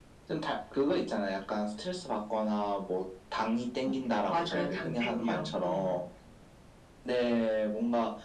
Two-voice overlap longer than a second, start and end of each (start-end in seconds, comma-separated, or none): 4.3-6.0